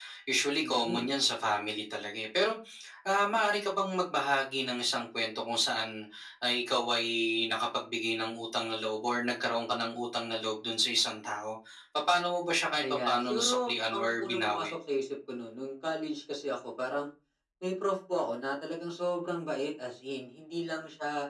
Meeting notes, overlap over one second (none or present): present